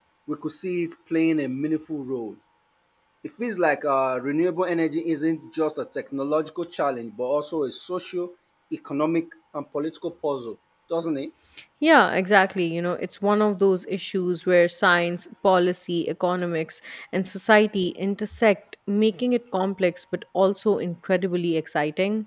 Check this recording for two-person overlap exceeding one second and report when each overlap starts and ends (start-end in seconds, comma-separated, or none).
none